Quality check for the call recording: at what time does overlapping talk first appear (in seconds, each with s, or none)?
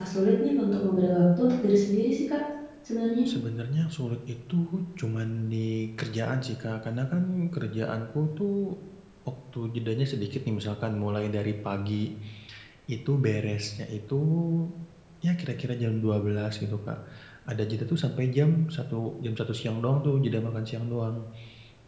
none